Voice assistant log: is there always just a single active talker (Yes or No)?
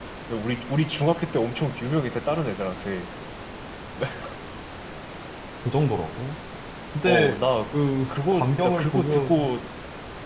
No